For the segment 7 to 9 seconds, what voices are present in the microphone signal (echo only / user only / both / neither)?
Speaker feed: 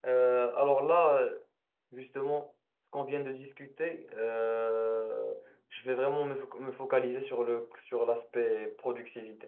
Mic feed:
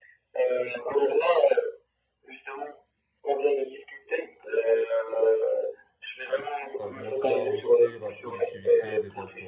both